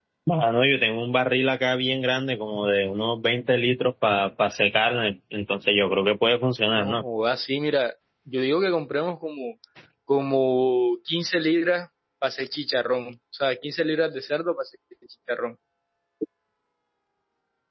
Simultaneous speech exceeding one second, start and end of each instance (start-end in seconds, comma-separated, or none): none